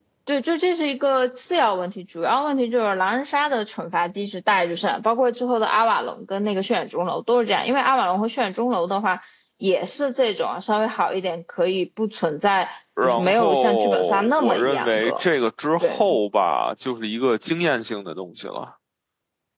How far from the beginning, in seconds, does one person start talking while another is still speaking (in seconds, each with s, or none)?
13.0 s